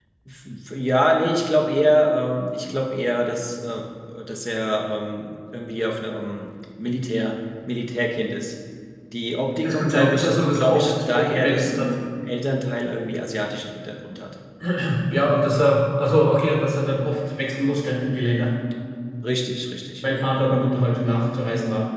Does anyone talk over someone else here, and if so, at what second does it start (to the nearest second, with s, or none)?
10 s